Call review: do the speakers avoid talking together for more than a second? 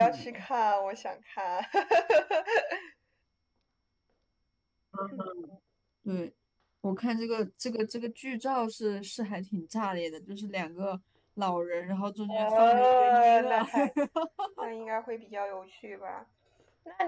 No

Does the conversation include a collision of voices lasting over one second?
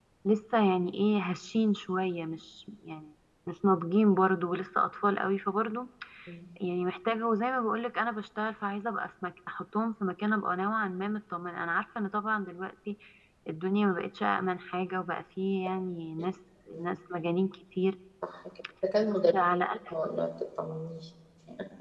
No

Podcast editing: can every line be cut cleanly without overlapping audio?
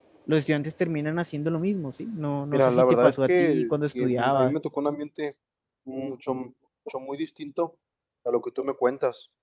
No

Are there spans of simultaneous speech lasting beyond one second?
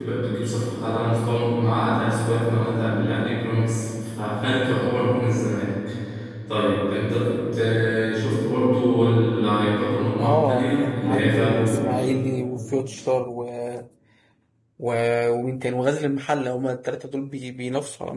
Yes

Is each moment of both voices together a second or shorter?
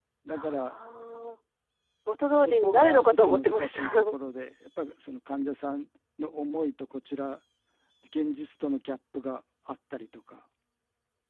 No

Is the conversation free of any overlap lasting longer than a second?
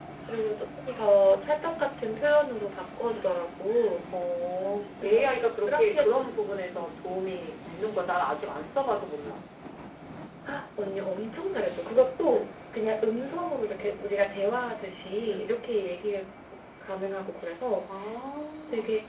Yes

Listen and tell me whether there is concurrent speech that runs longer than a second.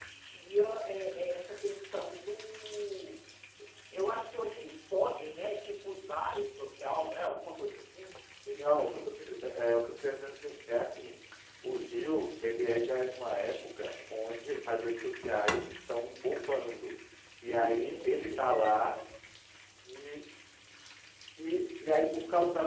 Yes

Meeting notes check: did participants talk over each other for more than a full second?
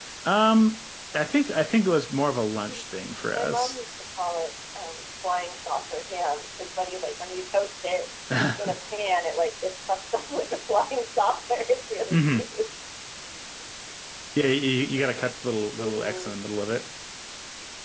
No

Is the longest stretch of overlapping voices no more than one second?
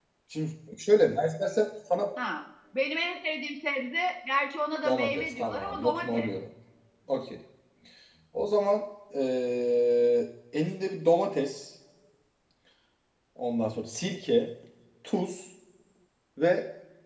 No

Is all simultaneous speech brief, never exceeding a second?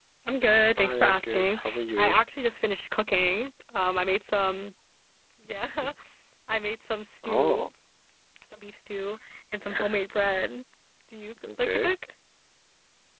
No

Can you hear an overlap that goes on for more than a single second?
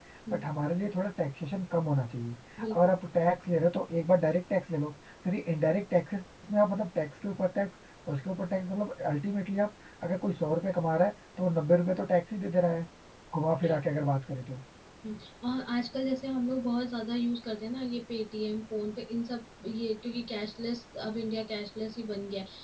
No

